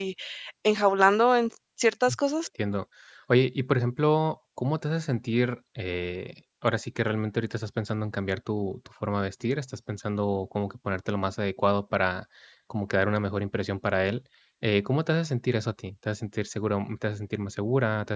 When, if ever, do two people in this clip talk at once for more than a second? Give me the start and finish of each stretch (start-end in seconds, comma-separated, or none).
none